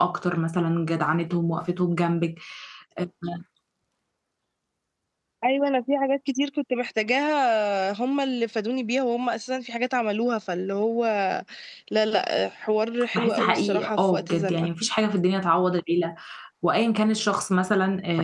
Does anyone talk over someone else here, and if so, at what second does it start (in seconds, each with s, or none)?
13.1 s